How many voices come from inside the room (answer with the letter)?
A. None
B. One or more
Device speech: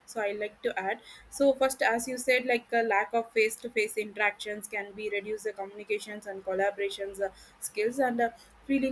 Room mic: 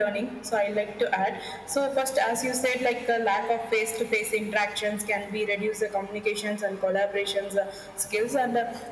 A